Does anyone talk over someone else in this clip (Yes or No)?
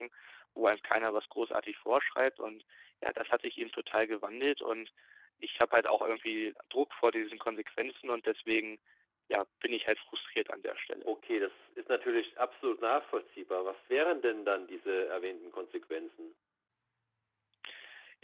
No